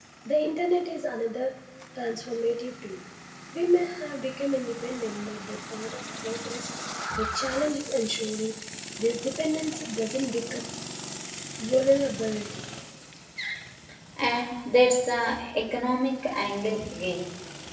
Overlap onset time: none

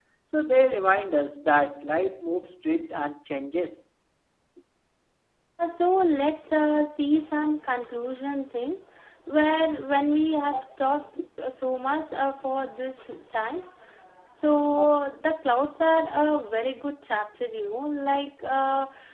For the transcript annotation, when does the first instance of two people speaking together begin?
none

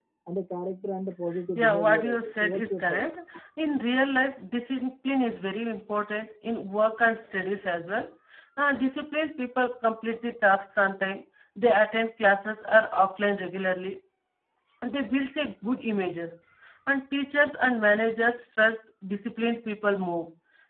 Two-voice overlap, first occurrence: 1.6 s

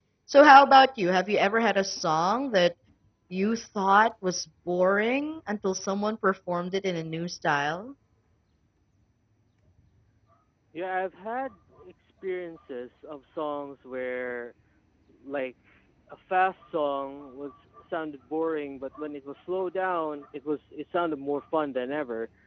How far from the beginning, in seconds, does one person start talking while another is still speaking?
none

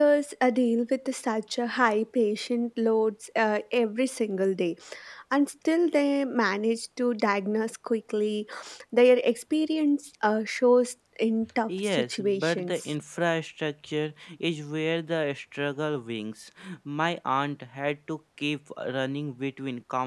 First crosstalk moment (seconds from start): 11.7 s

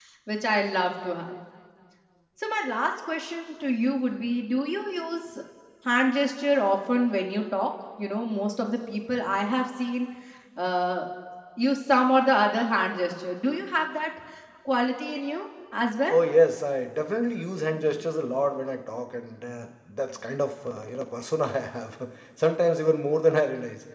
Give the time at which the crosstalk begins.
none

